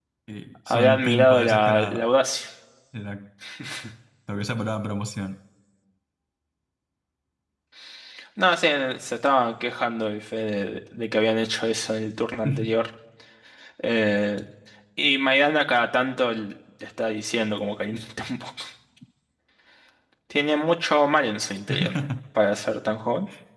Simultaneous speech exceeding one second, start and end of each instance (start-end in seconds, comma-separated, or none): 0.7-2.0